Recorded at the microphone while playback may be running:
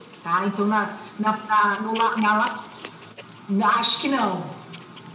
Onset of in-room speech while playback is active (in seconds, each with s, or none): none